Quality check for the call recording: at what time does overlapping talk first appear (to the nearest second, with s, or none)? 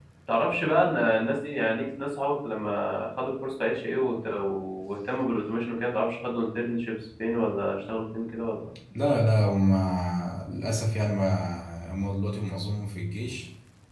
none